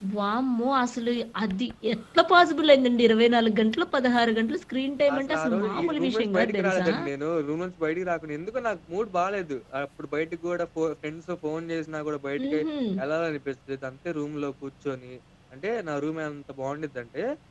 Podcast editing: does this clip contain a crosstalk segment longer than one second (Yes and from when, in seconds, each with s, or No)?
Yes, from 5.1 s